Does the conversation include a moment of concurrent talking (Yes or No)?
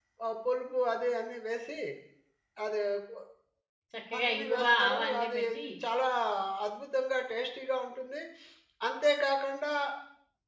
Yes